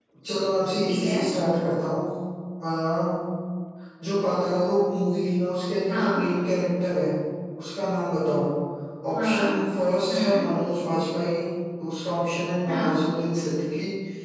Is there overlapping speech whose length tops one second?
No

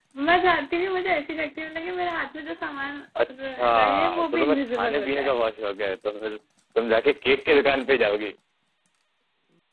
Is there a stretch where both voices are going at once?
Yes, from 3.4 s

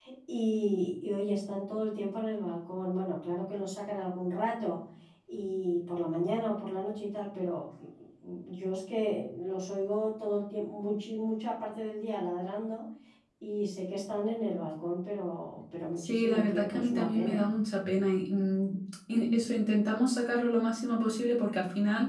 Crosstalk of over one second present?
Yes, from 16.0 s

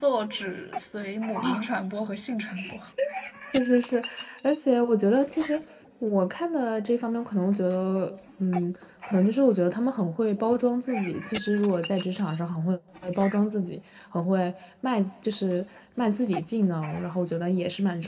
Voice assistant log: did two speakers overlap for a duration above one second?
No

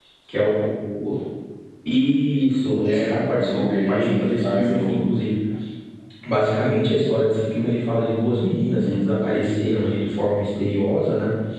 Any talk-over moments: Yes, from 2.6 s

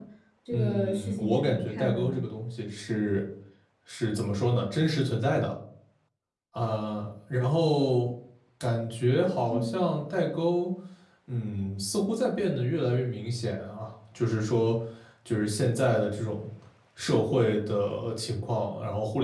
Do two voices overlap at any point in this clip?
Yes, from 0.5 s

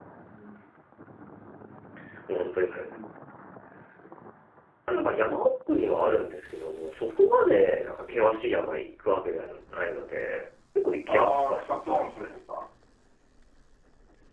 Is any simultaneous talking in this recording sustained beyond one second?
Yes, from 11.1 s

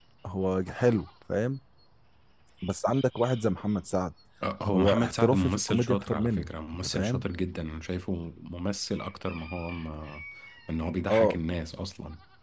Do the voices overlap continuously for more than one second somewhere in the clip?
Yes, from 4.7 s

